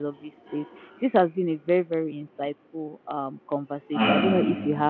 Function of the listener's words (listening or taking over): listening